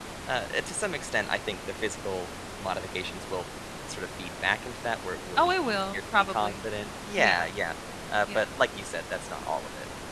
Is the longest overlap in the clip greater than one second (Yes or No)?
Yes